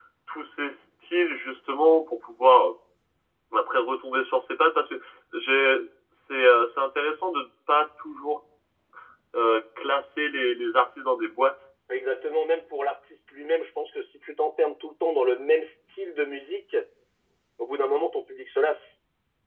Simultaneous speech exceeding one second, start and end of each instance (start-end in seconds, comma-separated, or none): none